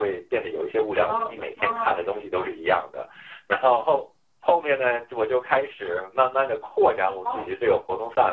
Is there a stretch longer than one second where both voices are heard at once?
Yes, from 0.8 s

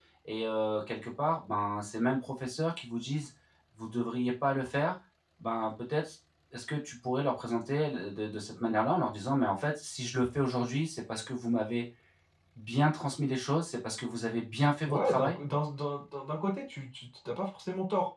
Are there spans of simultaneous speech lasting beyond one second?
No

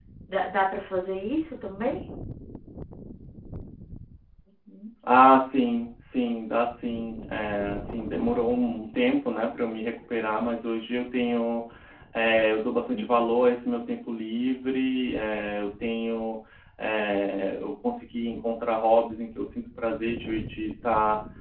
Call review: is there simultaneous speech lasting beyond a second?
No

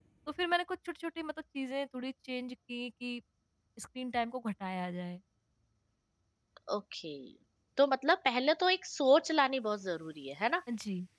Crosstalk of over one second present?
No

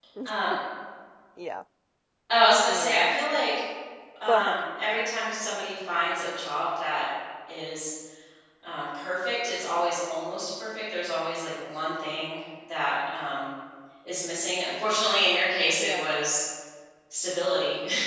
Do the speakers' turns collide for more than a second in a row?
No

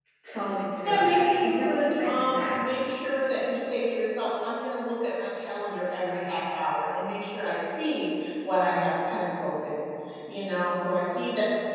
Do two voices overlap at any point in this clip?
Yes, from 0.8 s

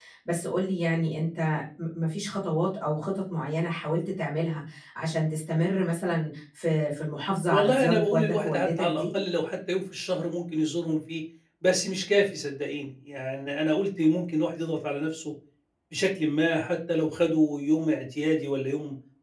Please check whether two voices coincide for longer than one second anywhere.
Yes, from 7.5 s

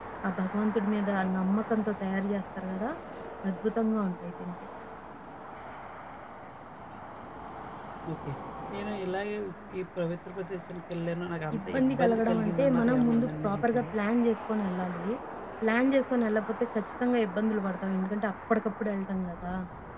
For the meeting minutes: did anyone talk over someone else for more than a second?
Yes, from 11.5 s

